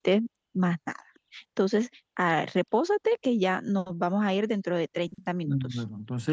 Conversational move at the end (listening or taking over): taking over